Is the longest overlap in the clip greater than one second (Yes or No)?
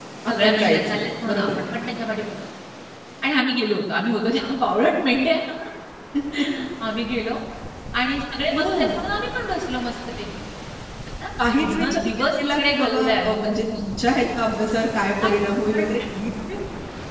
Yes